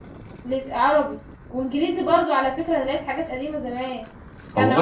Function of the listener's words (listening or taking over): listening